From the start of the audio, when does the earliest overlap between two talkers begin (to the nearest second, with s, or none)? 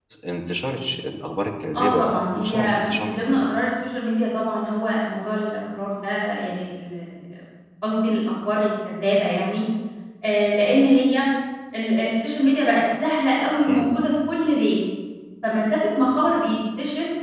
2 s